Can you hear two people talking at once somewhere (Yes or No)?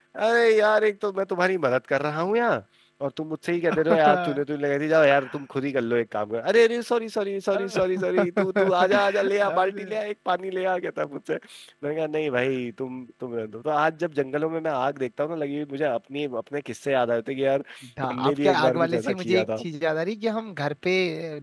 Yes